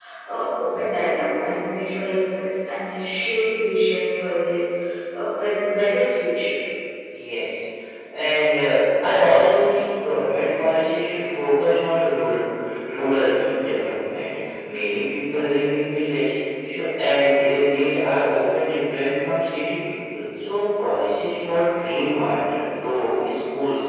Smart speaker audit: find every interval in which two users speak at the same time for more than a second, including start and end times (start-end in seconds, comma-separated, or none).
none